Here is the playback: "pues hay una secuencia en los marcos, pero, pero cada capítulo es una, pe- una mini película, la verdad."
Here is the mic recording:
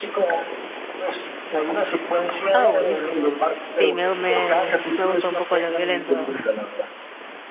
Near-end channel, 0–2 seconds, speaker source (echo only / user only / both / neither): echo only